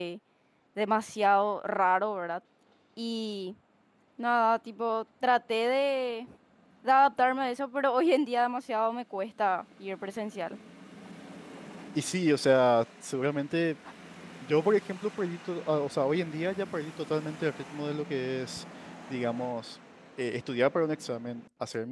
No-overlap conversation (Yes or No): Yes